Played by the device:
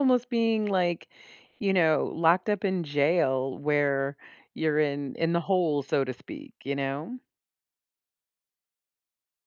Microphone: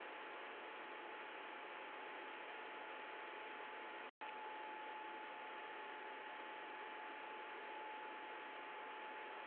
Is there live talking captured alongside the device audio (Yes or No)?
No